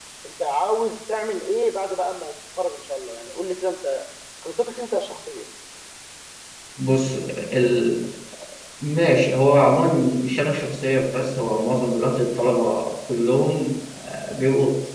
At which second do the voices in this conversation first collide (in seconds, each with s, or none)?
none